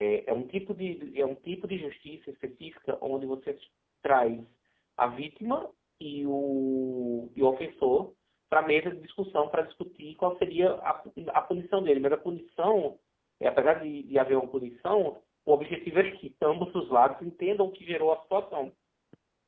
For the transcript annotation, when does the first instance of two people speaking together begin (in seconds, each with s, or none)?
none